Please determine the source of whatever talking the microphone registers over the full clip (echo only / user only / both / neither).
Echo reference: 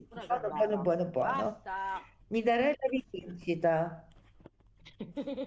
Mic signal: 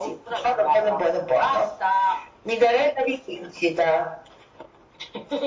echo only